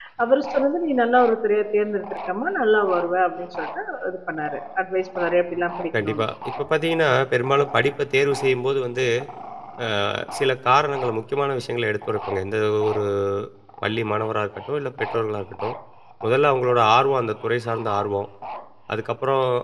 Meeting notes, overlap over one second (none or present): none